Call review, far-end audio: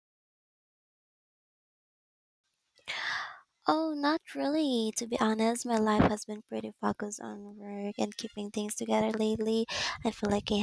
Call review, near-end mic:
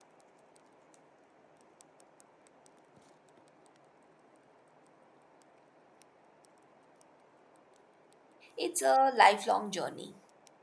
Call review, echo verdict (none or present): none